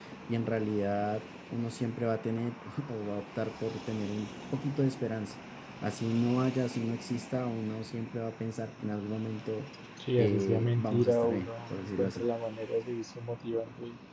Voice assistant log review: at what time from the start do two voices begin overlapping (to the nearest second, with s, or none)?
10 s